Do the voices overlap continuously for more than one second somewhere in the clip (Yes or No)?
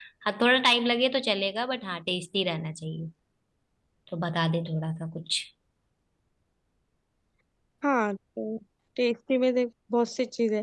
No